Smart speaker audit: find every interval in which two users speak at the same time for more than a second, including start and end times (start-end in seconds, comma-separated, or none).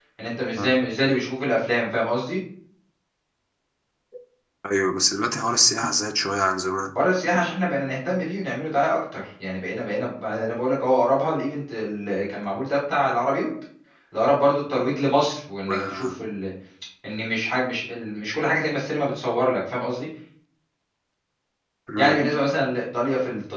none